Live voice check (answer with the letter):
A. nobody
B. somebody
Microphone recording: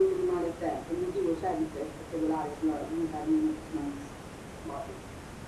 A